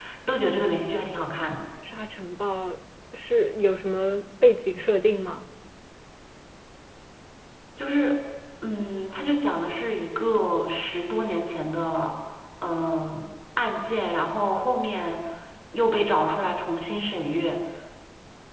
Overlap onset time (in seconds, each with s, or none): none